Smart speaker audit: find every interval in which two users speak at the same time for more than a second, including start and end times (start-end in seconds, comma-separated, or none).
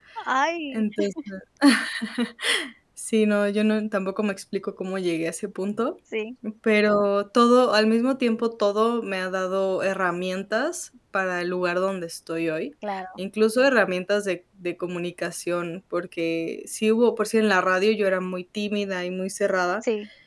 none